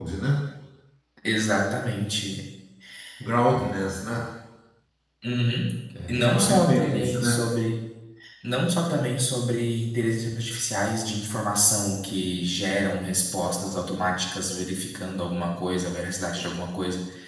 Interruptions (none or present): present